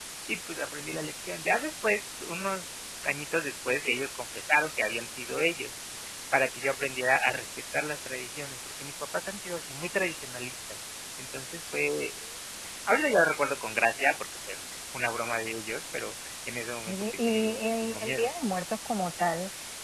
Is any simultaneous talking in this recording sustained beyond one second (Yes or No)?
Yes